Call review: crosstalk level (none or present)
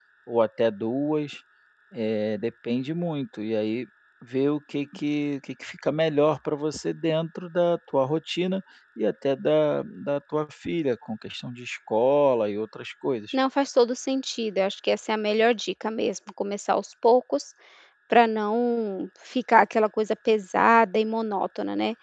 none